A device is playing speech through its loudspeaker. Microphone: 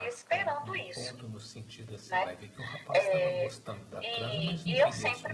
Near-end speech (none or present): present